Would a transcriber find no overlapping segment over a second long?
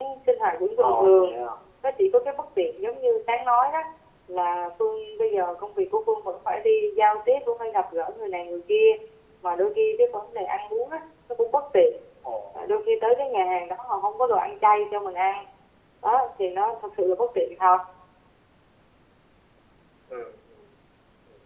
Yes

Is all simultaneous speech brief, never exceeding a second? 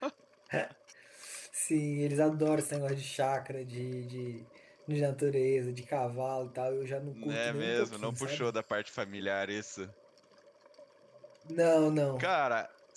No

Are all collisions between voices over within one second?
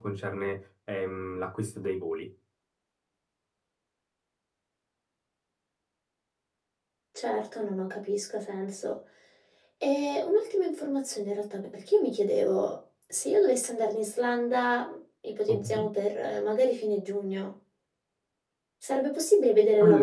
Yes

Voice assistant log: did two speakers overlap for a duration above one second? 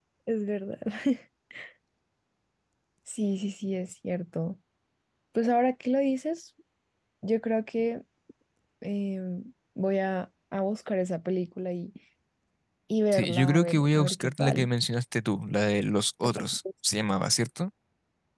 Yes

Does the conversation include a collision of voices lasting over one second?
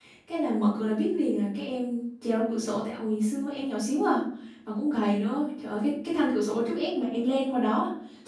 No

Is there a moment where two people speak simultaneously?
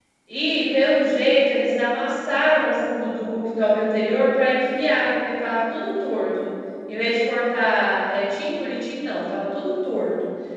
No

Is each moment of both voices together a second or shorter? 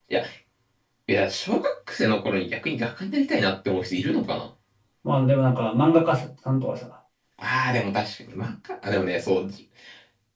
Yes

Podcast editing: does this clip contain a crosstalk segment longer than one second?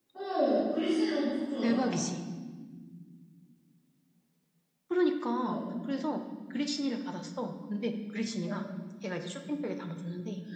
No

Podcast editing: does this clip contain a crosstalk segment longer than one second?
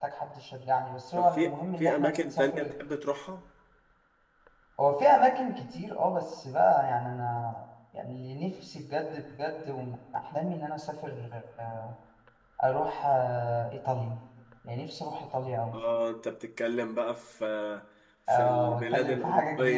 Yes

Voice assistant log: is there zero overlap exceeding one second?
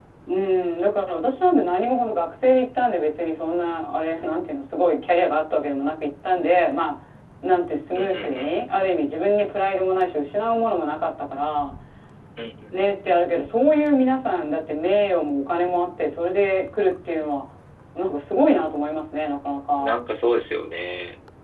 Yes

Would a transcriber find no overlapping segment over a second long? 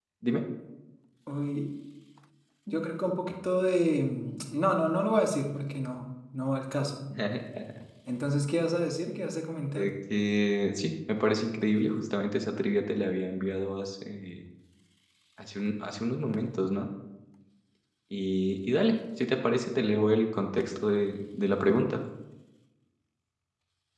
Yes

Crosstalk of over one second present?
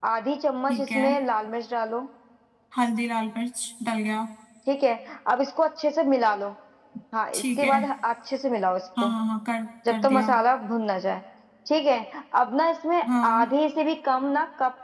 No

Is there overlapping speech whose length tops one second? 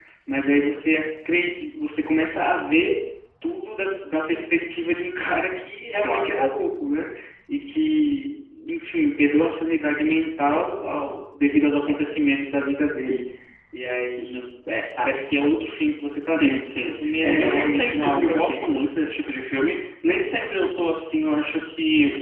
Yes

